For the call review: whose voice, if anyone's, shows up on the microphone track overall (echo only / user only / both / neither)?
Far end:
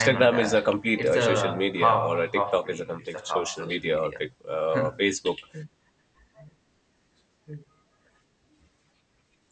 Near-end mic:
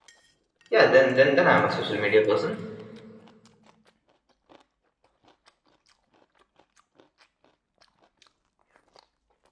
user only